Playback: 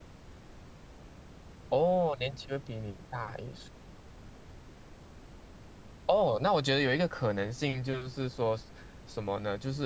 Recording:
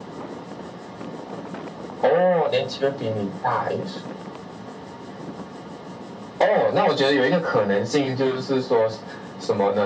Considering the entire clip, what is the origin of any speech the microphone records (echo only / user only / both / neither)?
echo only